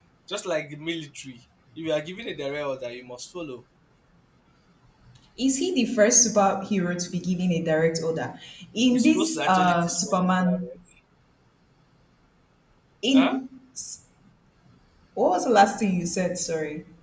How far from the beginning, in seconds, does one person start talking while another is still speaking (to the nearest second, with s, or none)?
9 s